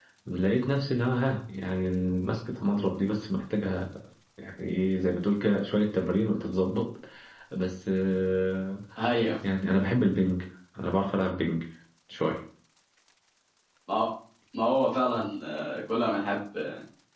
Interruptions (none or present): none